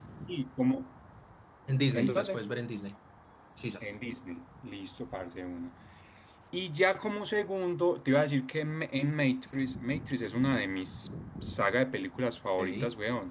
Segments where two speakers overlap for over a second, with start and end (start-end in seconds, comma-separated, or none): none